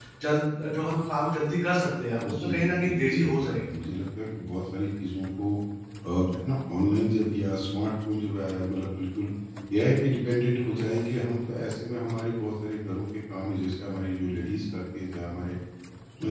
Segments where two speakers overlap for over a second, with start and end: 2.2-3.6

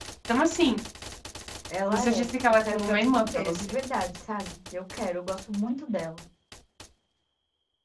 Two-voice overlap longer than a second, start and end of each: 1.9-3.7

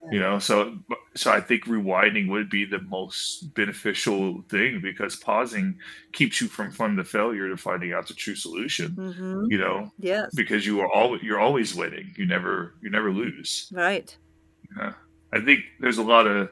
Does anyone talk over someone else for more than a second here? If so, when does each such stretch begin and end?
none

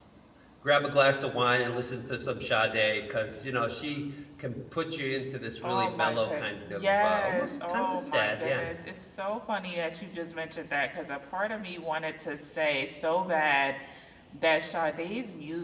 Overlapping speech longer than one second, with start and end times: 5.6-8.7

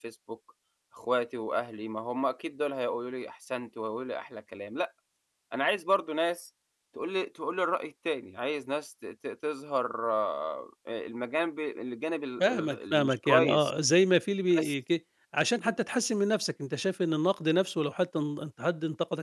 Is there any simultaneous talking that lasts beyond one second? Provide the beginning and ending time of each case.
12.4-13.7

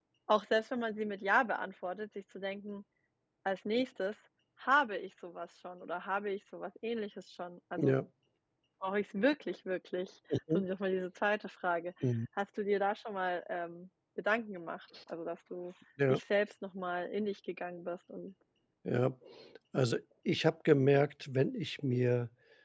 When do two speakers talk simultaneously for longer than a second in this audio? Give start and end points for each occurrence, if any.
none

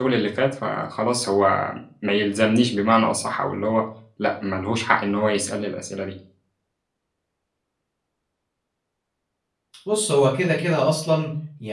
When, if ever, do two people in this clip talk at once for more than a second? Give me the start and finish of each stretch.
none

